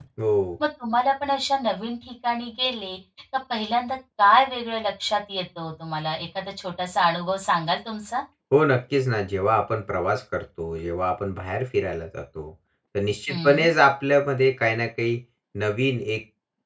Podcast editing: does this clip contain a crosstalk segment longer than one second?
No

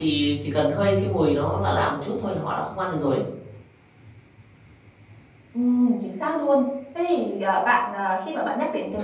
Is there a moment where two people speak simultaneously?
No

